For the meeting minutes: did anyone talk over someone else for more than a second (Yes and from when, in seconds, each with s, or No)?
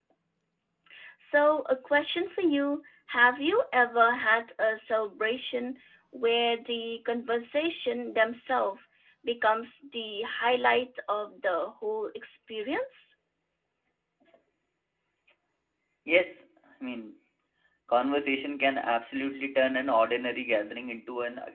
No